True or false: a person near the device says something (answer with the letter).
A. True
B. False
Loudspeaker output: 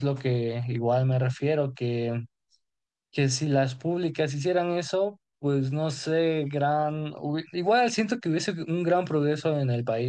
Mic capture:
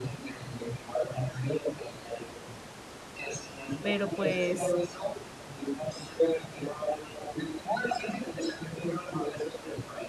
A